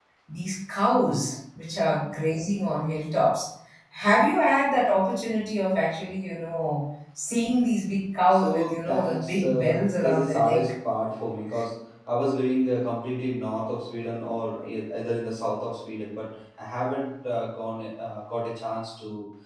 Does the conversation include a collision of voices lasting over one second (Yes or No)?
Yes